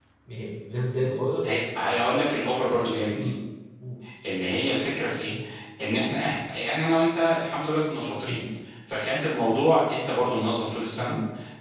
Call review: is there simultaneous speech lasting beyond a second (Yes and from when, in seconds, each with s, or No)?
No